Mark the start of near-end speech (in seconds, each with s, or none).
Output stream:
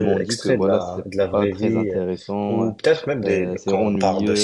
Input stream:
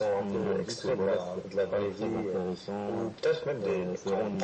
none